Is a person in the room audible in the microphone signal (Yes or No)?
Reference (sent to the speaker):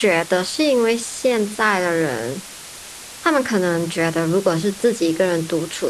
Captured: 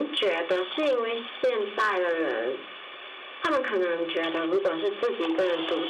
No